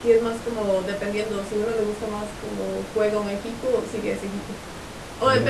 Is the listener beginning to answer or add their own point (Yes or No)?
No